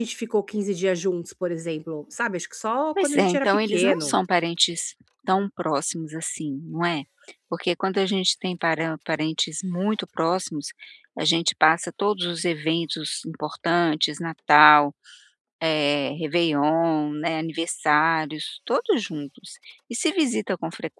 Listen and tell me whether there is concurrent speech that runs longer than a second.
Yes, from 3.0 s

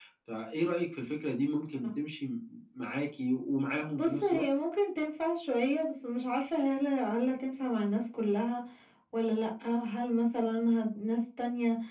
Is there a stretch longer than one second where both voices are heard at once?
No

